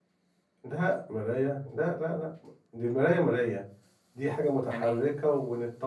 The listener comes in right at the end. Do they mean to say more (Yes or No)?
No